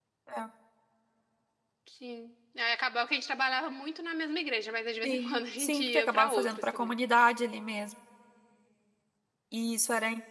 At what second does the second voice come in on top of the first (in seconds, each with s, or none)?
5.0 s